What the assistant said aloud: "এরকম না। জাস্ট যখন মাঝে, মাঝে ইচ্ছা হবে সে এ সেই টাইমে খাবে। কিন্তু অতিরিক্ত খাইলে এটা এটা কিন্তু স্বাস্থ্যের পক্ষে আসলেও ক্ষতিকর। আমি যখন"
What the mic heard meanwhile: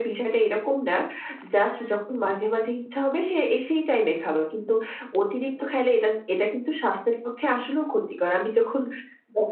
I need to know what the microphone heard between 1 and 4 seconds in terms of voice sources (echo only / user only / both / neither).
echo only